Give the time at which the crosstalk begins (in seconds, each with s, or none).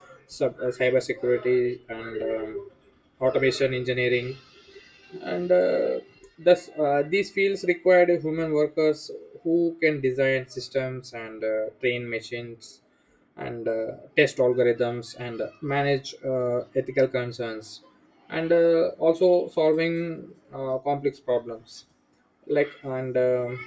none